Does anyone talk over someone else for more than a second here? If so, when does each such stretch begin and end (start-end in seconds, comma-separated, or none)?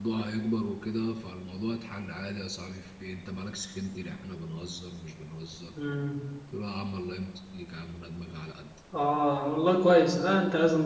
none